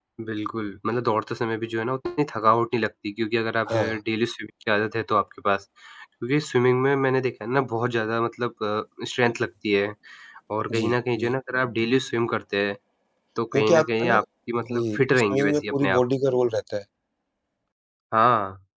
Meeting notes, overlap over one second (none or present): present